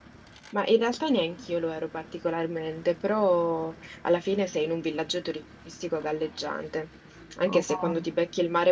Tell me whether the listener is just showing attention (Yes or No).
Yes